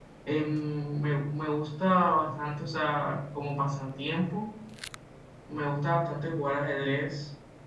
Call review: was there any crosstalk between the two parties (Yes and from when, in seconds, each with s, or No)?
No